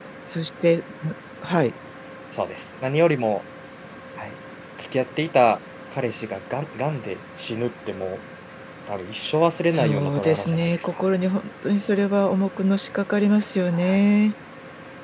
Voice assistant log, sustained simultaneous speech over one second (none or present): present